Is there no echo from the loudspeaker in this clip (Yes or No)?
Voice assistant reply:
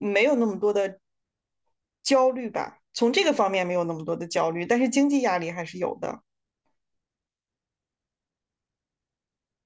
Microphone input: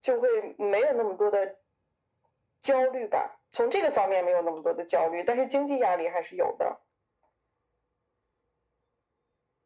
No